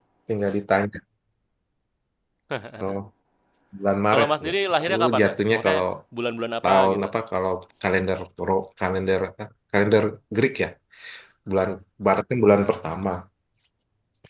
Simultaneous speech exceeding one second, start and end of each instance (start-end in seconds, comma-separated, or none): 4.1-5.8